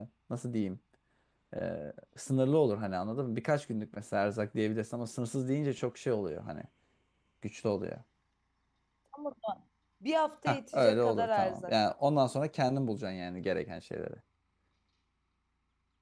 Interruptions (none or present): present